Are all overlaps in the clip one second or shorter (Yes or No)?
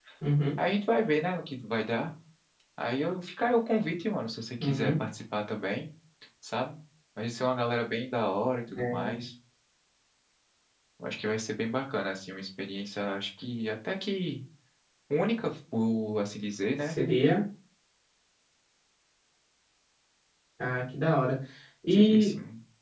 Yes